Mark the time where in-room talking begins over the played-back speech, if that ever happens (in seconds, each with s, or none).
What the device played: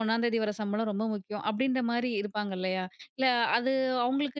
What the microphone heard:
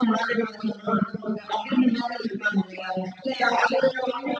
none